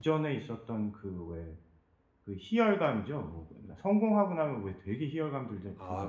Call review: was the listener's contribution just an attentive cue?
No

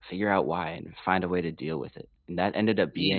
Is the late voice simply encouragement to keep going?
Yes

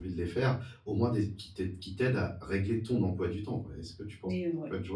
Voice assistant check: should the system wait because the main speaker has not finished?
No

